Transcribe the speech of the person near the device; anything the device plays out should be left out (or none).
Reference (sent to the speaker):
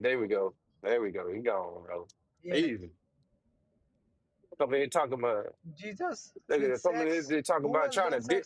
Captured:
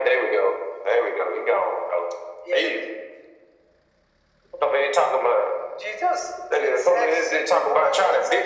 none